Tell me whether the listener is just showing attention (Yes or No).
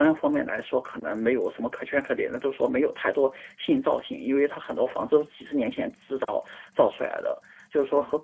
Yes